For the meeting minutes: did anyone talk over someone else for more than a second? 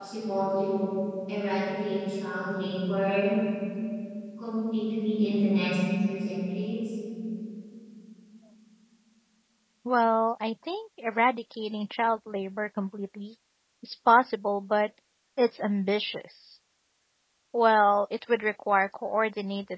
No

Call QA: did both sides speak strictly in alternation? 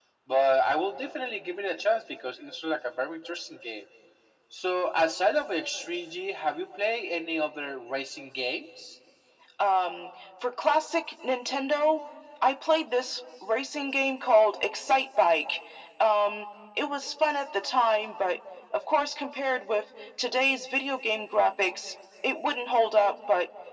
Yes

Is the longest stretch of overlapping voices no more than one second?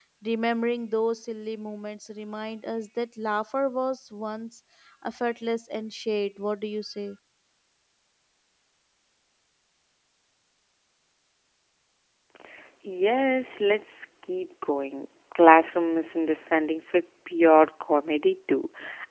Yes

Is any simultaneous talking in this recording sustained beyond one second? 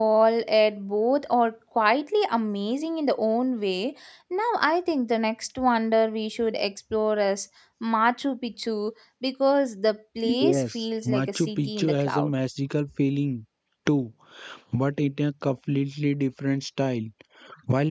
Yes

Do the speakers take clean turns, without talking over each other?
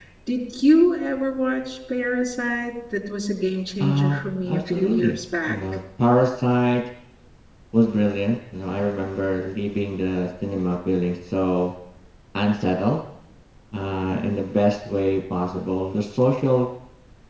No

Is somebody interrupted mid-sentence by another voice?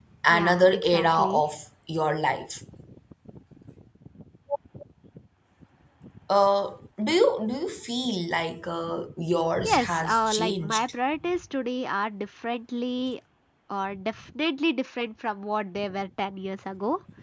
Yes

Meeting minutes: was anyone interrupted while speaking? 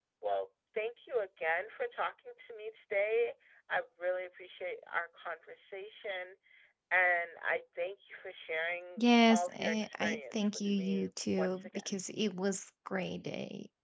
Yes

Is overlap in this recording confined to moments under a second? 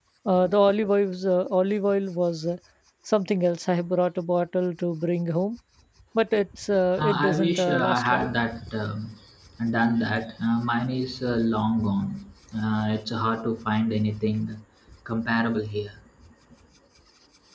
No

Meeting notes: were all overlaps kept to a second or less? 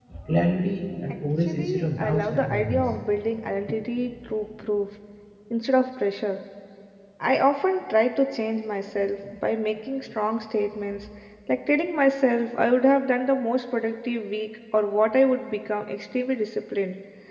No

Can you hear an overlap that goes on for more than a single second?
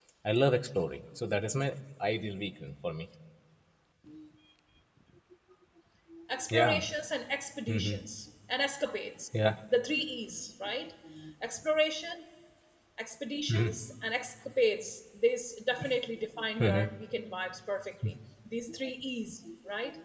No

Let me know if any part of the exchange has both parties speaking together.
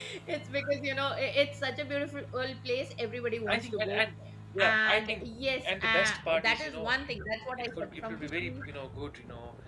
Yes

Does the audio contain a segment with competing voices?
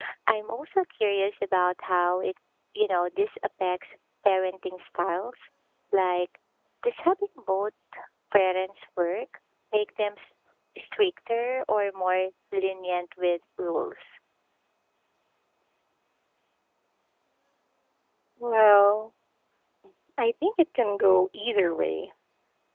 No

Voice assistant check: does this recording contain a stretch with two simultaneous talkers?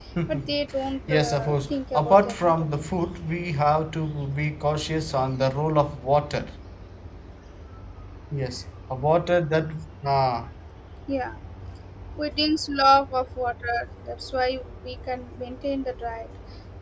Yes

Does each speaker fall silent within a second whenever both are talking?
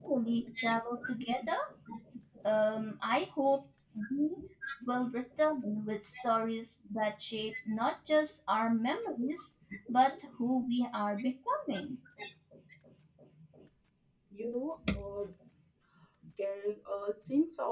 Yes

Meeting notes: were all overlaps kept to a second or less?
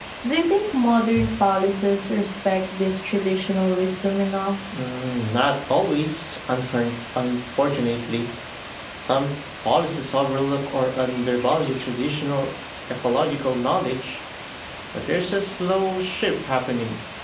Yes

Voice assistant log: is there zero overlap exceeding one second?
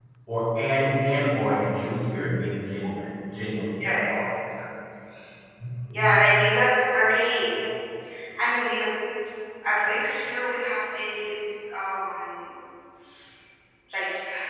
Yes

